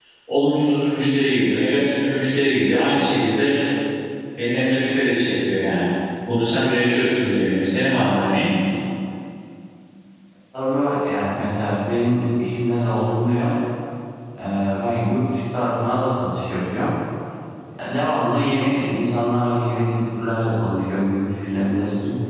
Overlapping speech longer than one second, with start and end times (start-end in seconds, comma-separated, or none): none